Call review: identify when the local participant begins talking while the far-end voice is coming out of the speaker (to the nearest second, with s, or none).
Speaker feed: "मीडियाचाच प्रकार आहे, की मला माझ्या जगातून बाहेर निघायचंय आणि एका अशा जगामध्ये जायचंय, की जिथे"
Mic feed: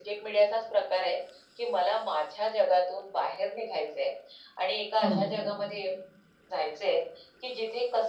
5 s